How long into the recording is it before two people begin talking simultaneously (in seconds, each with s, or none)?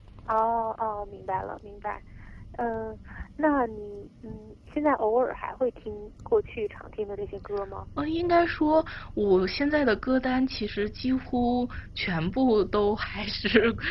none